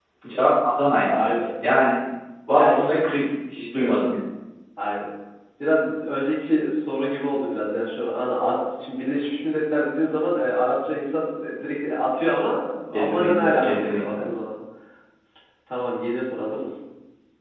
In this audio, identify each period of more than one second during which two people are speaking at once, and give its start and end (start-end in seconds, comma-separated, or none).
12.9-14.3